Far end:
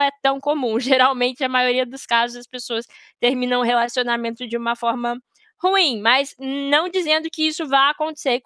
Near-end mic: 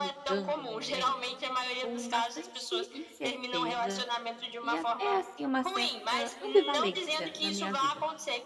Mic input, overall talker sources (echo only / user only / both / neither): both